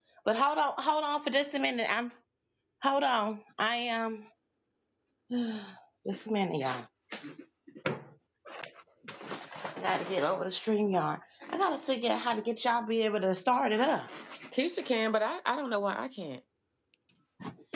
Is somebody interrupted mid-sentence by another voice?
No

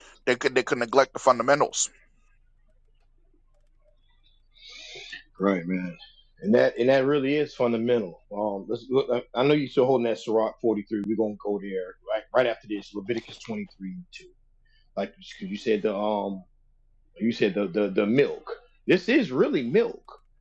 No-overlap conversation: Yes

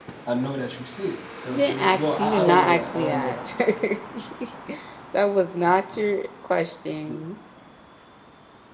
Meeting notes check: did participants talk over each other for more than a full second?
Yes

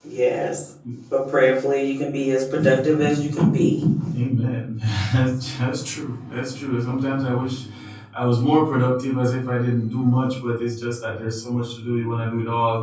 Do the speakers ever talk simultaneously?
No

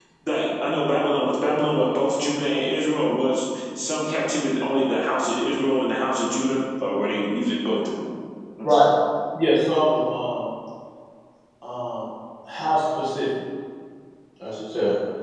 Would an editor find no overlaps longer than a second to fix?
Yes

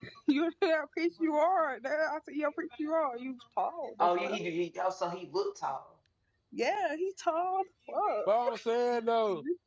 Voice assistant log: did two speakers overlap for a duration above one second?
No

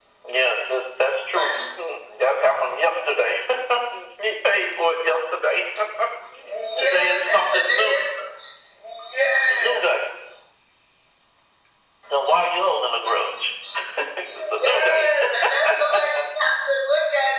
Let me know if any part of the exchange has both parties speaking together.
Yes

